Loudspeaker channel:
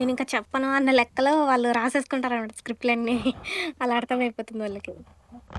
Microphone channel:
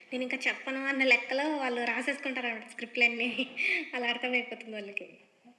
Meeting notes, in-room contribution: none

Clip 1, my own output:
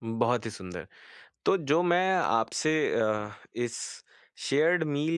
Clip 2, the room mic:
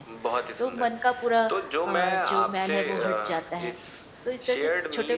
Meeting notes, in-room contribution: present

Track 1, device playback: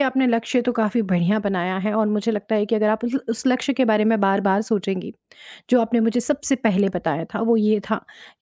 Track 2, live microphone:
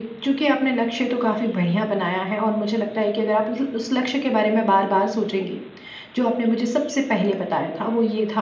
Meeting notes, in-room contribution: none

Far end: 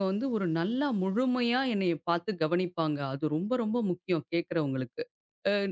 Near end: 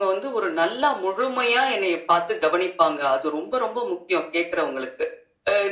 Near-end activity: none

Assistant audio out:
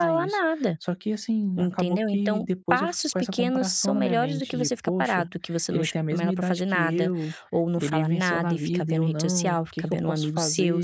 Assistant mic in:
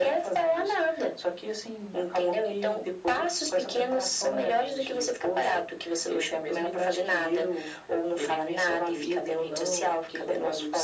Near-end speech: none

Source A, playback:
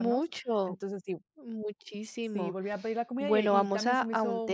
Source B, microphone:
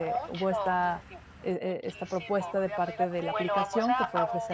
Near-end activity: present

